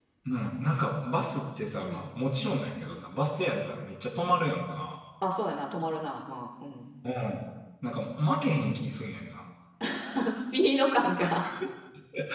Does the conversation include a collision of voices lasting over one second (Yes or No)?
No